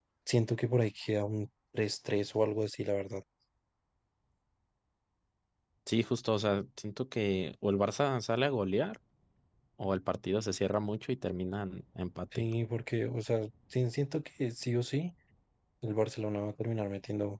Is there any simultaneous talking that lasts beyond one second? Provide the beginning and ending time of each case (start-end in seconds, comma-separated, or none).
none